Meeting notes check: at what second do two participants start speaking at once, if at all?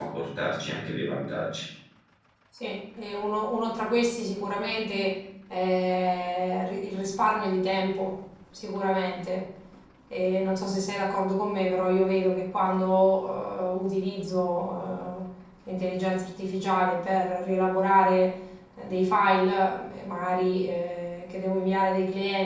none

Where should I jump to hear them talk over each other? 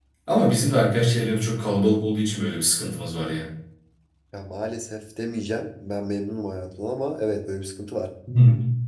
none

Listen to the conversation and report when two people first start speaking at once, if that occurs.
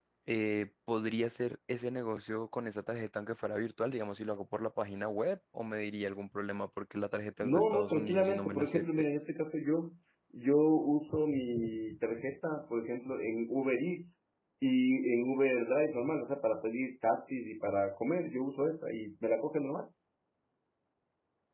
7 s

